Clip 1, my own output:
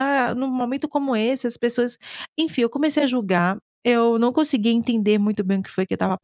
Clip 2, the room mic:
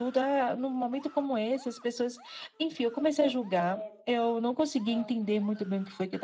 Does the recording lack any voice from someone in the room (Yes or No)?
No